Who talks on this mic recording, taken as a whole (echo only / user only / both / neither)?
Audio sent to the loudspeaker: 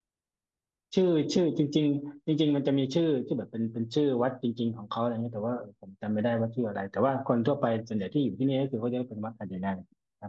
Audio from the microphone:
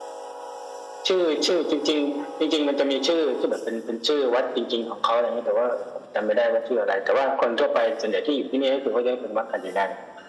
echo only